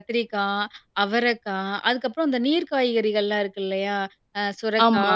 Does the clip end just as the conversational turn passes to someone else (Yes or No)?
No